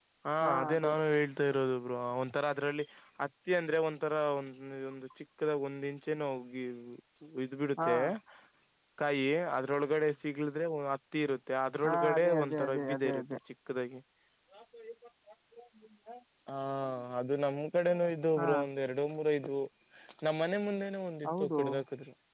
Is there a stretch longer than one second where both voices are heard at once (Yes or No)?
Yes